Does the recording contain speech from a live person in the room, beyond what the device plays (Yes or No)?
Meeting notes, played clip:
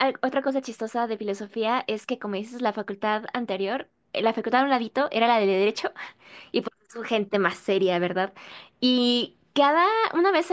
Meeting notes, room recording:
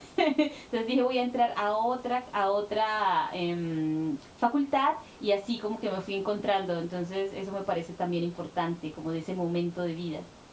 Yes